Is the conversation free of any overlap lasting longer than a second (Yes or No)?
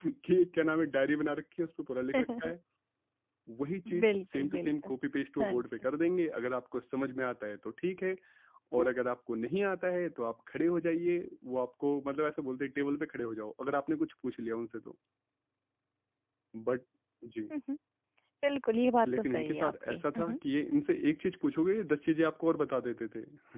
No